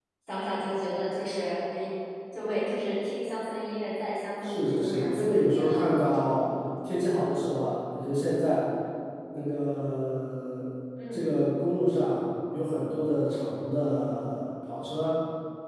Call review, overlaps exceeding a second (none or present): present